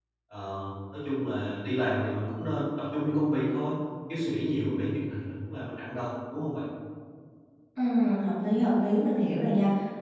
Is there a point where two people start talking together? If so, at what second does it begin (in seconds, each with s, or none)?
none